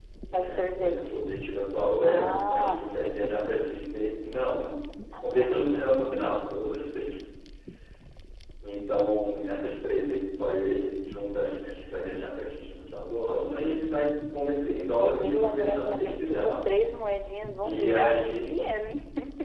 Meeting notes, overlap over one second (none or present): present